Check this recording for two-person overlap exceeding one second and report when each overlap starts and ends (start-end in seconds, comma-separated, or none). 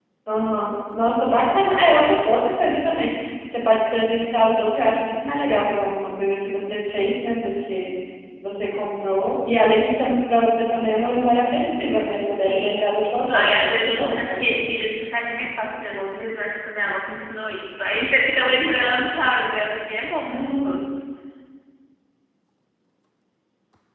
12.4-14.6